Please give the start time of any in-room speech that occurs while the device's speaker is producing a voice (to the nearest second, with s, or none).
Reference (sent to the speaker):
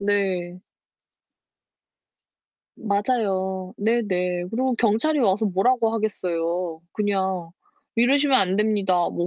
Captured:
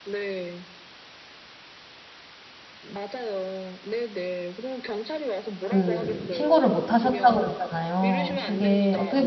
6 s